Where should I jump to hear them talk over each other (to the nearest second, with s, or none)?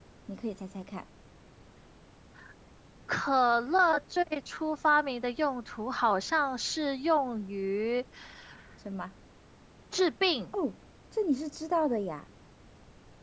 none